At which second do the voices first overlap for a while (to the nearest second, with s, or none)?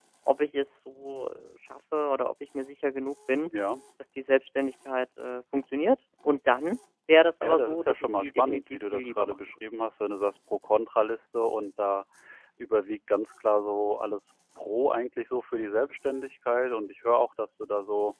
7 s